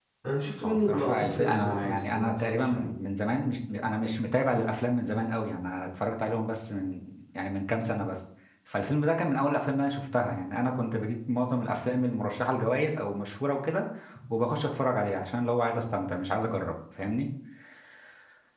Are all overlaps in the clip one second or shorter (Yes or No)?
No